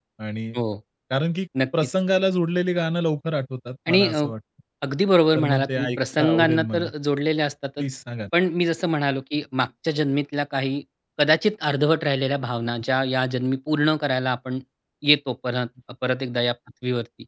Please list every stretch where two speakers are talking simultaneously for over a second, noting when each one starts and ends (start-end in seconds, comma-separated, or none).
5.4-6.9